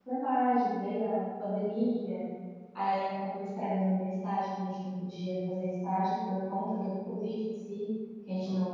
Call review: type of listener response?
listening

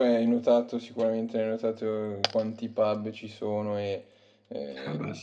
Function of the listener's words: listening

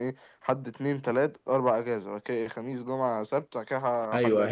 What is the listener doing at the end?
taking over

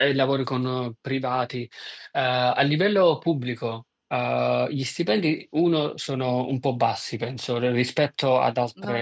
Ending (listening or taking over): listening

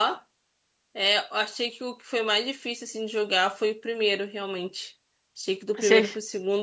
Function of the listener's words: listening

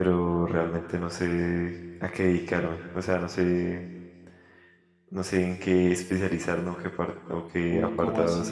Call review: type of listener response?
taking over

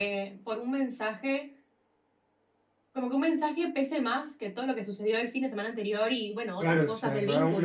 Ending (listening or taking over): taking over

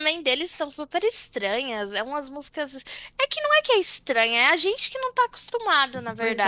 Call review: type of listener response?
taking over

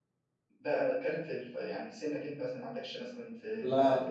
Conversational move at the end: taking over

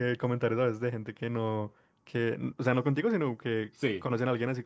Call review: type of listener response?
listening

